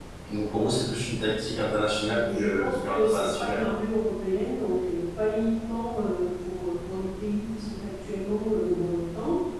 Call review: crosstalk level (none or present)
present